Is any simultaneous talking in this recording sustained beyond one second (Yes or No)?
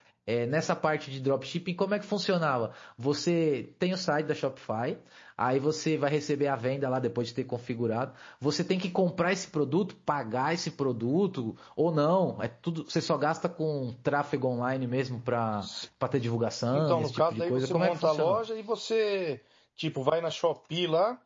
Yes